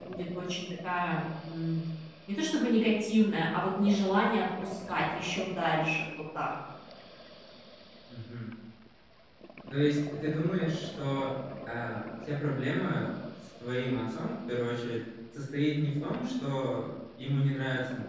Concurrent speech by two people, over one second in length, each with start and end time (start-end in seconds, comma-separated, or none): none